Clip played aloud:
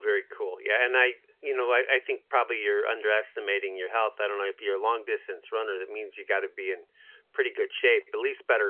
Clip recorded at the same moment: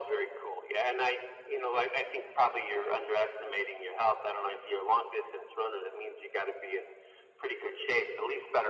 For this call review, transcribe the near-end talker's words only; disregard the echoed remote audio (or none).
none